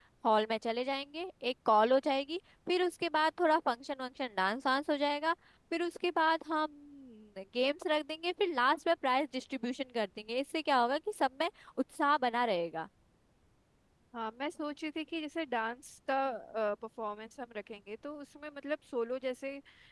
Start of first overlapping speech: none

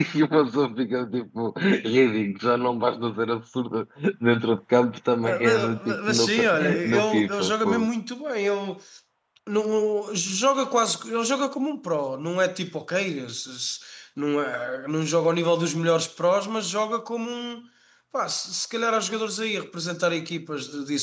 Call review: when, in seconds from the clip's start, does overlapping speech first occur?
5.2 s

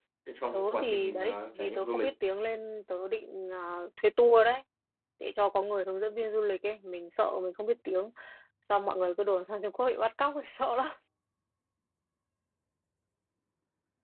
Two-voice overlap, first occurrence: 0.5 s

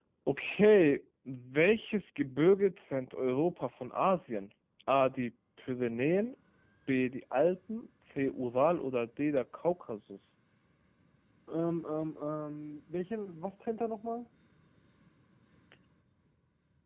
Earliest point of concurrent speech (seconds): none

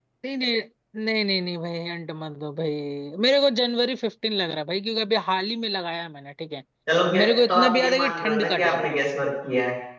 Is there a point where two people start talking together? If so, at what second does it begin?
7.1 s

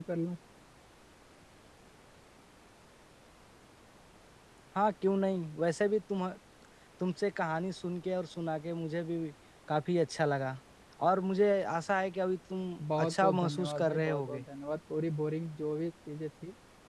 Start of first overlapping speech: 12.8 s

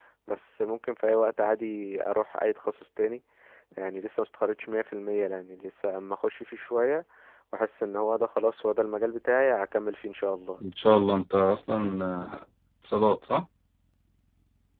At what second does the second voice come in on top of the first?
none

